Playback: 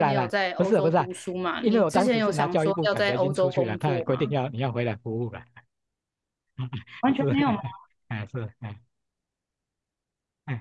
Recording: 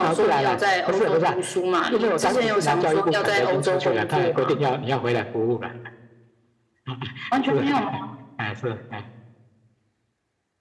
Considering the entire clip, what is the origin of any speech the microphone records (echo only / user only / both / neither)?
echo only